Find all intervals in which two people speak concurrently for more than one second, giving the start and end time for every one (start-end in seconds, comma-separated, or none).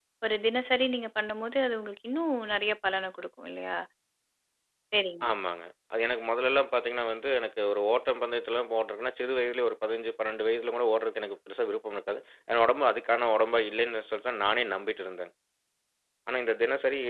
none